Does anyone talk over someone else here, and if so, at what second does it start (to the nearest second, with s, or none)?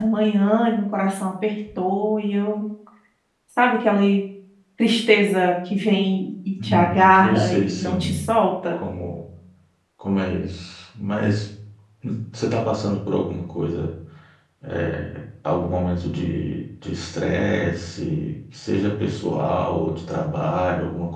7 s